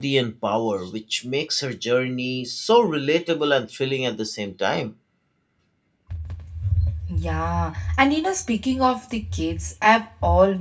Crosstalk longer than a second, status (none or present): none